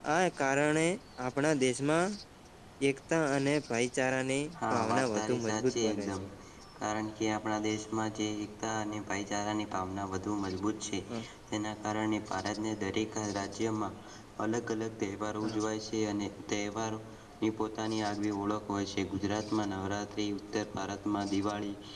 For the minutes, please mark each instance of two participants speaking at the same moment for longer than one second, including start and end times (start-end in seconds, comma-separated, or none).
4.6-6.2